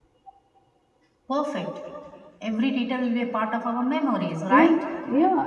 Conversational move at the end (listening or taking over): taking over